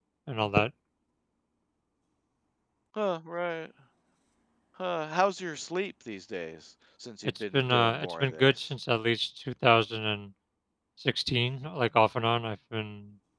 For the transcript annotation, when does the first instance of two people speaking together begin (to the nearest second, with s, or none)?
7 s